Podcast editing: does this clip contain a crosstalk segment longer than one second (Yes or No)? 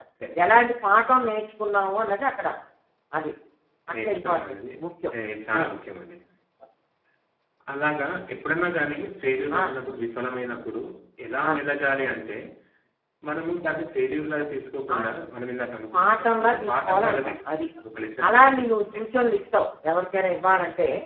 Yes